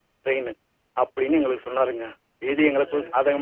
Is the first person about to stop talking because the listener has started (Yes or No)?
No